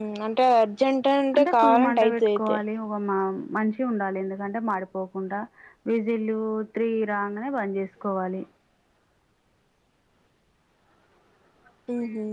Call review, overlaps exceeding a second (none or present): present